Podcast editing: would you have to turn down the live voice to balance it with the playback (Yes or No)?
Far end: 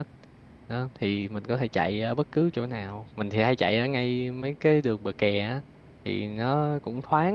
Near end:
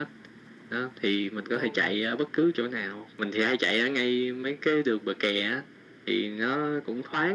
No